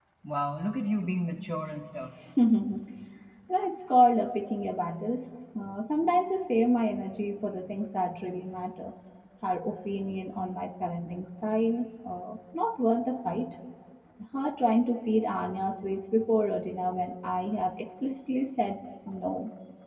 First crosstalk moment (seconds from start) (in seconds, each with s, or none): none